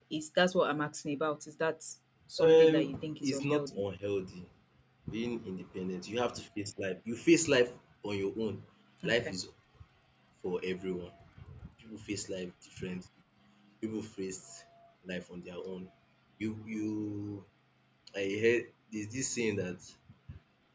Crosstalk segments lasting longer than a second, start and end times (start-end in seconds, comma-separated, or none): 2.4-3.8